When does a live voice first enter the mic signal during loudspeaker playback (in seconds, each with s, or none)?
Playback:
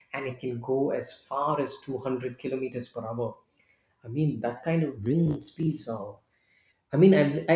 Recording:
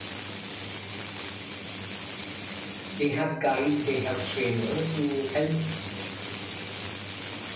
2.9 s